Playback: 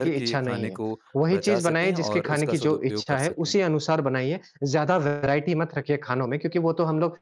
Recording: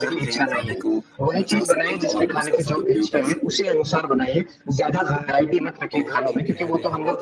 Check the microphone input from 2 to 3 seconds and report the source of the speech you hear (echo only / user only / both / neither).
echo only